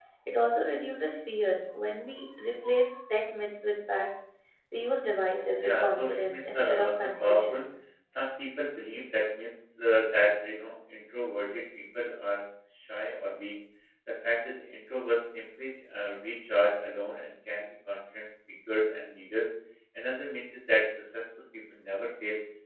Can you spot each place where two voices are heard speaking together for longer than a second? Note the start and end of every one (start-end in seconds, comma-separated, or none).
5.6-7.6